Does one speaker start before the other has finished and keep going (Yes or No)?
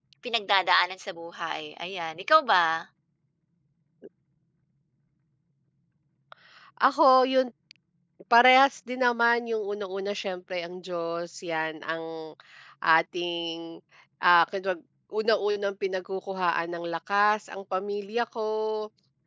No